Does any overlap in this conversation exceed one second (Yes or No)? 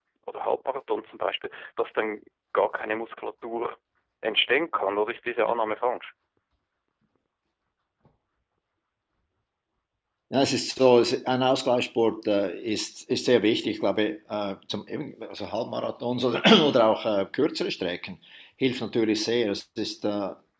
No